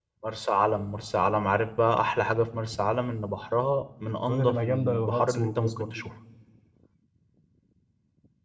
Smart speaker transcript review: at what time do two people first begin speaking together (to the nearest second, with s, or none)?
4 s